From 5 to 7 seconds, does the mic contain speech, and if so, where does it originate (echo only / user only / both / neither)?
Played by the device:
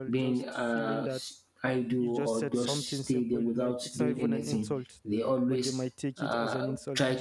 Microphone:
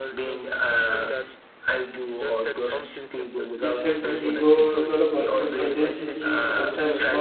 both